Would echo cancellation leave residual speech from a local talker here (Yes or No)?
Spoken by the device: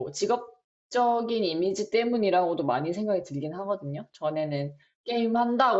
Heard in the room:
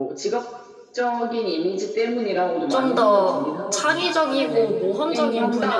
Yes